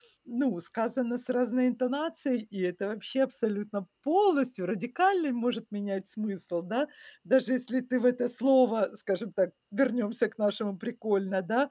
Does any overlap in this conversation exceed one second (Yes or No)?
No